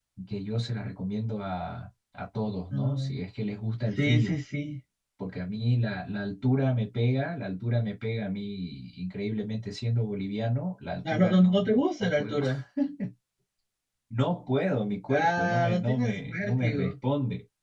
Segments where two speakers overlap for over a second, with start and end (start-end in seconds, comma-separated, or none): 11.1-12.4, 15.1-16.9